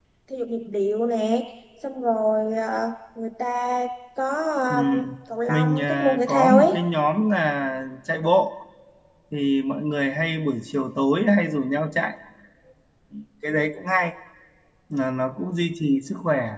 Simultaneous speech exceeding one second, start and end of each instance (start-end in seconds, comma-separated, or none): 5.5-6.8